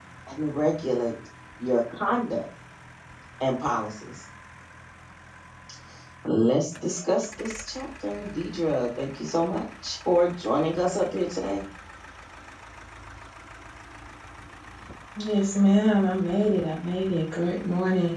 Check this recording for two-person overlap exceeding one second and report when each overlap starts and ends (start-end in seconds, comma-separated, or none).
none